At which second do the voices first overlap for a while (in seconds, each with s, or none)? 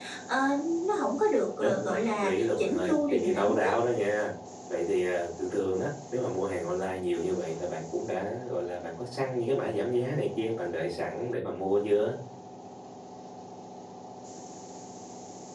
1.6 s